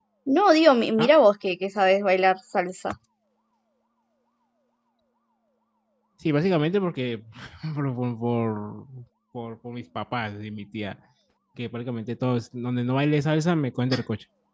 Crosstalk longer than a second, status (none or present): none